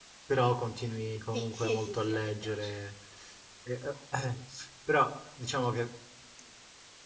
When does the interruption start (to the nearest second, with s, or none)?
1 s